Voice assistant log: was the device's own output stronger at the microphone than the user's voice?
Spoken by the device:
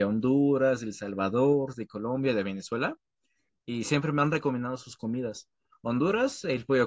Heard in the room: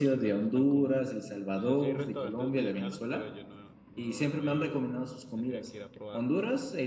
Yes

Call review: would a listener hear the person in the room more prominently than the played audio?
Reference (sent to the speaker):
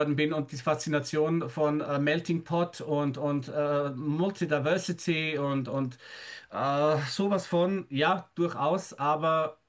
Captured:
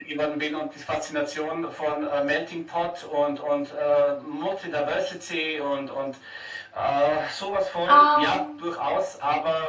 Yes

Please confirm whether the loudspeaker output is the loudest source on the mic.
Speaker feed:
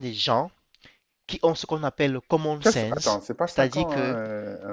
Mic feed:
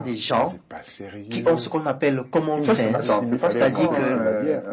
Yes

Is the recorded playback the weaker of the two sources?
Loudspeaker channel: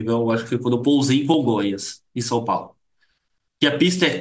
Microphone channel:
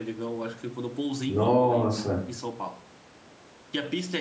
Yes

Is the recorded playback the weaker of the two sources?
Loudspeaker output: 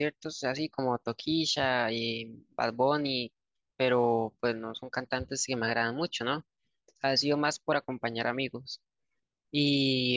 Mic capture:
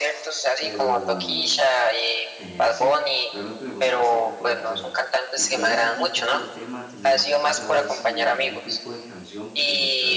No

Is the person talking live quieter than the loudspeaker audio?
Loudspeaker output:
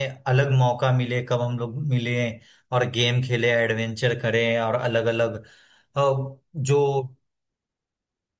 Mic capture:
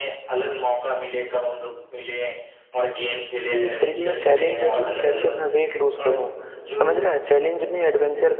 No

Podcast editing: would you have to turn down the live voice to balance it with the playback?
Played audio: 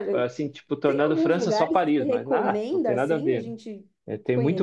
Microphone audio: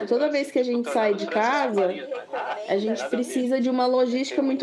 Yes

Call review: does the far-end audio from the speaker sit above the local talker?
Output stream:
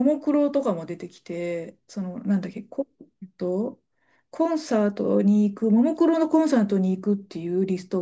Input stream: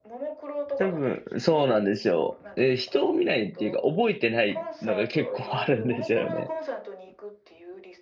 No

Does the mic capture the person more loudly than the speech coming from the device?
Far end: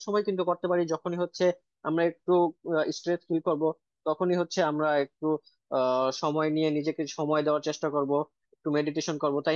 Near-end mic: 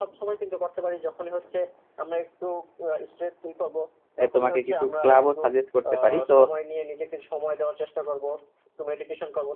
Yes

